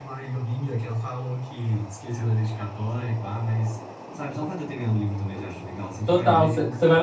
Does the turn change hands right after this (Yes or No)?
Yes